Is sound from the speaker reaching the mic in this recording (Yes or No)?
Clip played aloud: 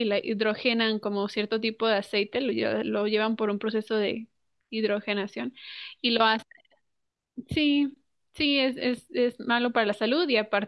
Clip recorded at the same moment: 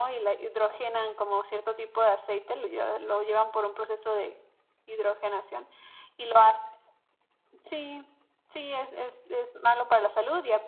Yes